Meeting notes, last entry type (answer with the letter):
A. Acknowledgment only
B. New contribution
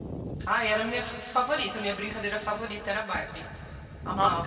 B